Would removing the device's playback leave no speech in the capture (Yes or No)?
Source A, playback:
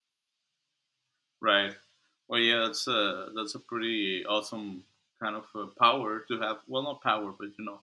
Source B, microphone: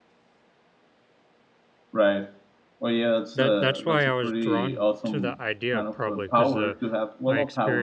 No